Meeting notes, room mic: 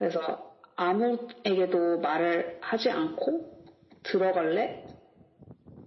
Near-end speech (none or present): none